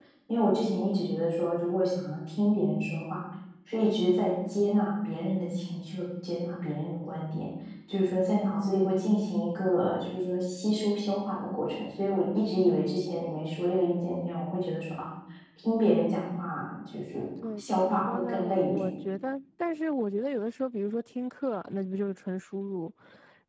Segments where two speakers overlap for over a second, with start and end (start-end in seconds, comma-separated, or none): 17.6-18.8